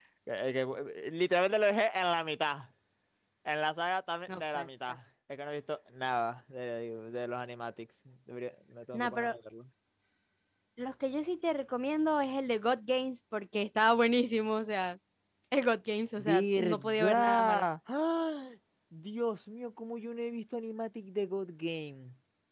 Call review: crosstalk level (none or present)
present